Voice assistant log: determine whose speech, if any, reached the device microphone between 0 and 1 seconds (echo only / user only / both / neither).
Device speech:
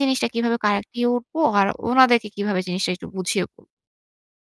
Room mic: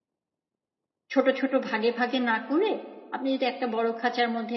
neither